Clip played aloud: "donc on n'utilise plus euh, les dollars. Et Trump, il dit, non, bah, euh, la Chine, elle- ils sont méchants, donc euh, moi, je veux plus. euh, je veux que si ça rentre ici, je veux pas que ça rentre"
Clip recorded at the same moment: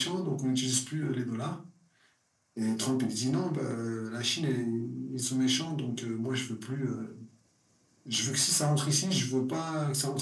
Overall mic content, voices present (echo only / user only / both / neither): echo only